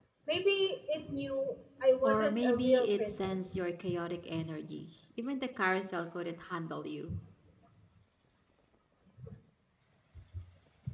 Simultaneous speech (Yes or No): Yes